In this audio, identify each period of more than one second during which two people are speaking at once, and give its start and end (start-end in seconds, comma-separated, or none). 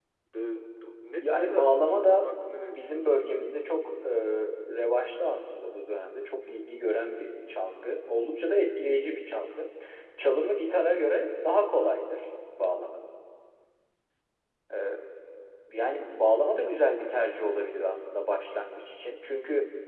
1.2-3.2